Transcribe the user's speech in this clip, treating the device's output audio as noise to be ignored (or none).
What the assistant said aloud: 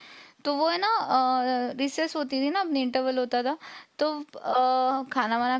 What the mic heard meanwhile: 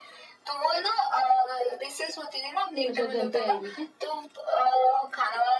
अच्छा घर पे आई हुई क्या